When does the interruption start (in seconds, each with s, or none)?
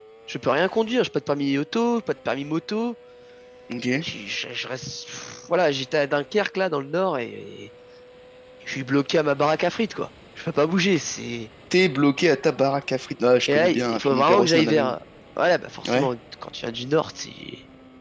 13.5 s